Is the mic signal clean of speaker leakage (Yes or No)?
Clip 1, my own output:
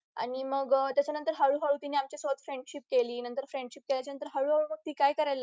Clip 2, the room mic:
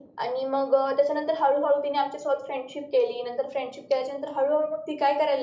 No